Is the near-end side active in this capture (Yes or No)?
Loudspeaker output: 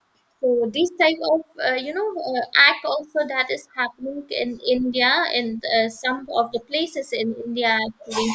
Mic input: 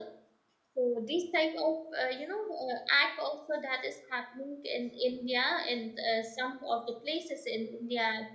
No